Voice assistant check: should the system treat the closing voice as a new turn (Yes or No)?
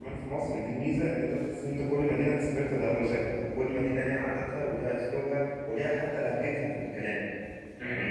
No